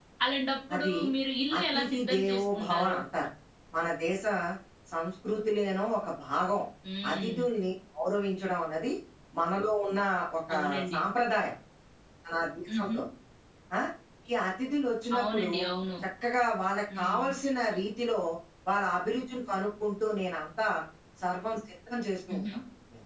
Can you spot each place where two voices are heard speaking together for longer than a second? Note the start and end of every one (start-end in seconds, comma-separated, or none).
1.6-3.0